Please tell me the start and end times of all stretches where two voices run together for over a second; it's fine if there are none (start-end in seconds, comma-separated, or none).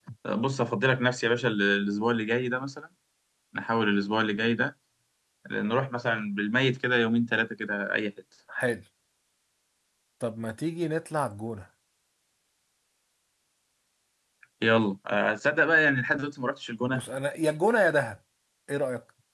none